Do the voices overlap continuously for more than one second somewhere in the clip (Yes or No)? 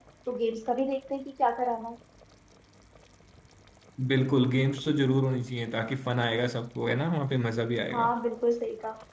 No